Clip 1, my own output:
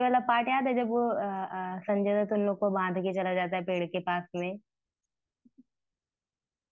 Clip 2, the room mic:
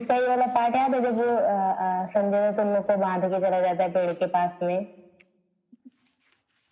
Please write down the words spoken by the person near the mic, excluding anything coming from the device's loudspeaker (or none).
none